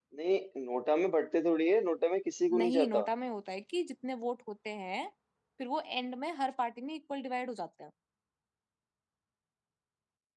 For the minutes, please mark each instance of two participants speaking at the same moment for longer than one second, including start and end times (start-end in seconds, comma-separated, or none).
none